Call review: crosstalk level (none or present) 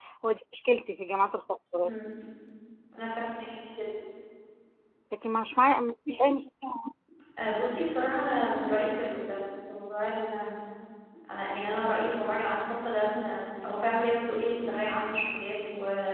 none